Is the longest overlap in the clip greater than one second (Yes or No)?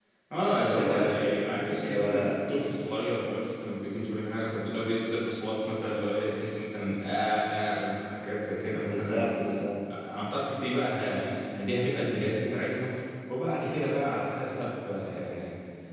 Yes